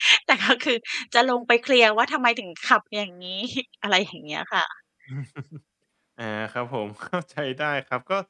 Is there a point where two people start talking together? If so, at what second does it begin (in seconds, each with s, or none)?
none